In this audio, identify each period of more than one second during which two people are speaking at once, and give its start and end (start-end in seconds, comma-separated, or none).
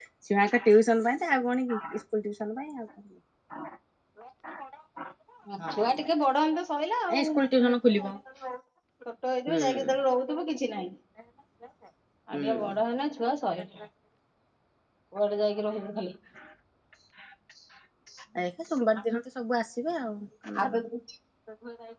none